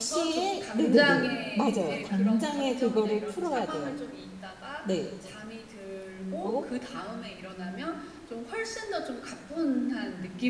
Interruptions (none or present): present